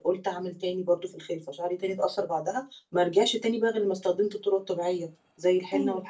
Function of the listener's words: taking over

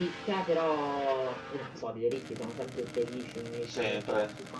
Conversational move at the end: listening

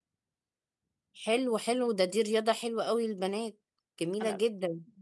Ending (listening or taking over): taking over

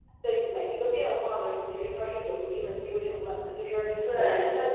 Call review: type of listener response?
listening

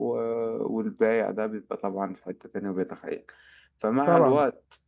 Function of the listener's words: listening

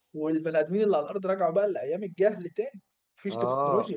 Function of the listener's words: taking over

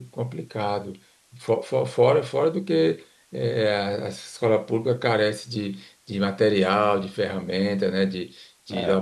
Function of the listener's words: listening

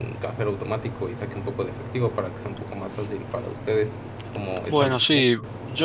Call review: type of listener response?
taking over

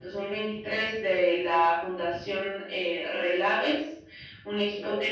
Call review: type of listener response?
listening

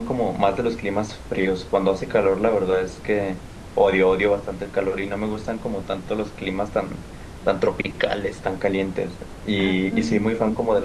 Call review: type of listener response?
listening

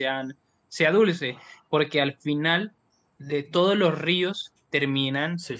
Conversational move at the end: listening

